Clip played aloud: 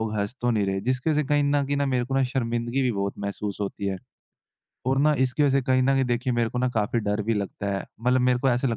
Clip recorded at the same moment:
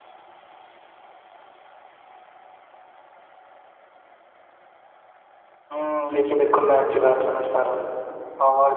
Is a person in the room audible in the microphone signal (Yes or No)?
Yes